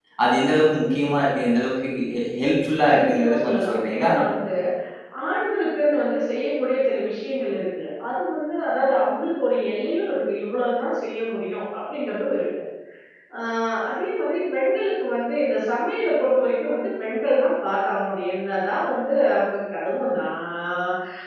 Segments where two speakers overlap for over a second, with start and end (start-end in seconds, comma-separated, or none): 2.9-4.1